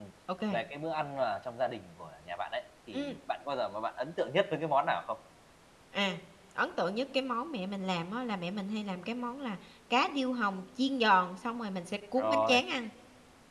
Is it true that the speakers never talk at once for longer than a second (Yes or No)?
Yes